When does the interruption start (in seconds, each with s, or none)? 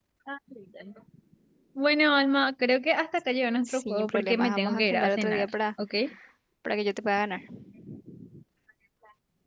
3.6 s